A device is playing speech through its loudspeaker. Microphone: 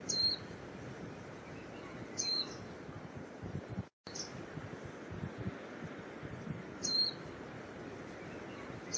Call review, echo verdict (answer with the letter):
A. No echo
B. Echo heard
A